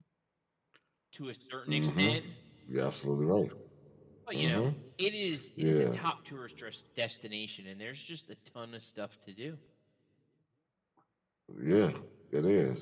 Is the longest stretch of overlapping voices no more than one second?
Yes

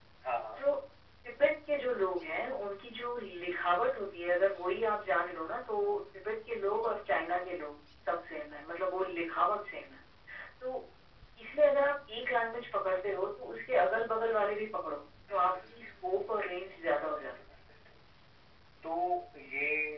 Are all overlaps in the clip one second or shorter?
No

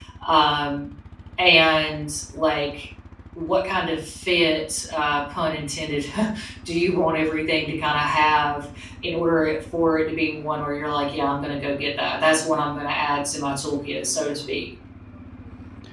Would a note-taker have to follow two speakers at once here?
No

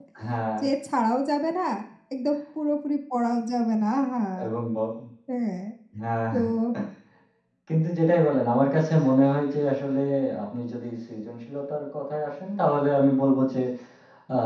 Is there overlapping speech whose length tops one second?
No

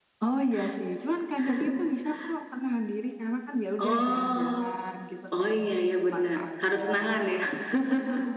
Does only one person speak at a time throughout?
No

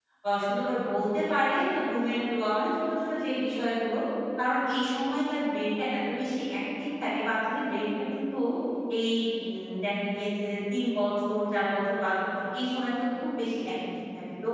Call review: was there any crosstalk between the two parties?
No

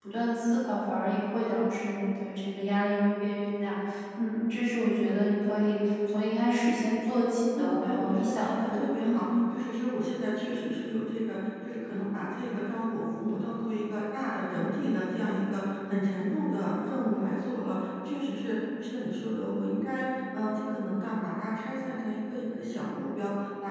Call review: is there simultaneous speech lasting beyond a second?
Yes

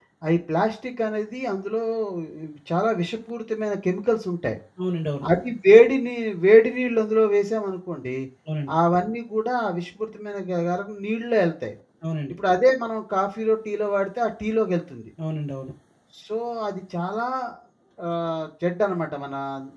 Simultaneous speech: No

